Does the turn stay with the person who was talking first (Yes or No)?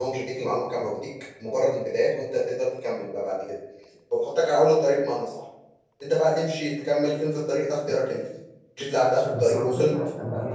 No